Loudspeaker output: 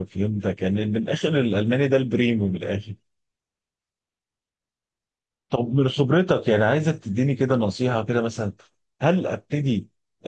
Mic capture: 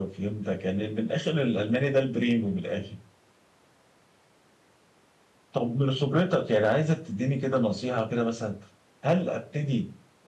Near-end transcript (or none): none